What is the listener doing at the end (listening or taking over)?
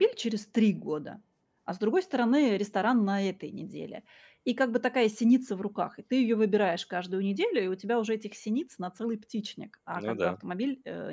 listening